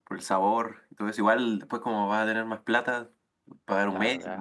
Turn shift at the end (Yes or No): Yes